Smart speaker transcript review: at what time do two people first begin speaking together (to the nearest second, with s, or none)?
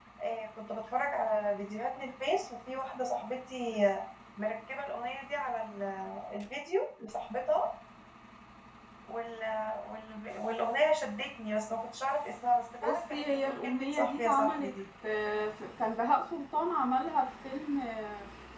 13 s